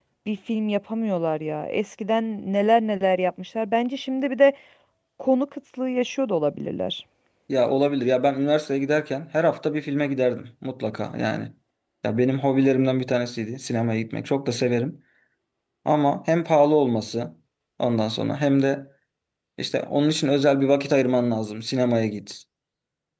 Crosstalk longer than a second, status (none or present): none